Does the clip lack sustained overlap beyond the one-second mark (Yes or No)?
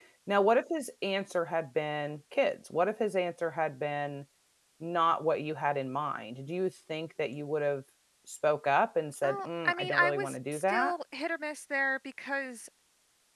No